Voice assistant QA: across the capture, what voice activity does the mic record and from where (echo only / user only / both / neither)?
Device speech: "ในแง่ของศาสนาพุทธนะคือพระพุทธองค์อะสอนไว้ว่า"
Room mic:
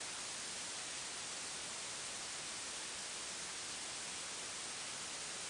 neither